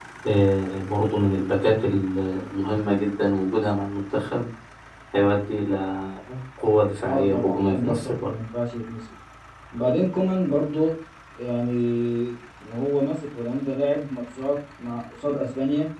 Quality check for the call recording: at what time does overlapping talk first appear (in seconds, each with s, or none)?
7.0 s